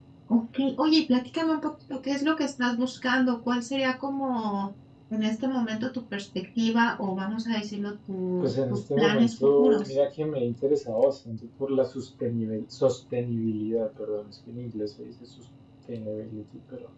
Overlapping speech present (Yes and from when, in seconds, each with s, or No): Yes, from 8.4 s